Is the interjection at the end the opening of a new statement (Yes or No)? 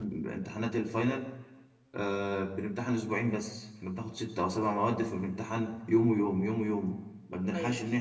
No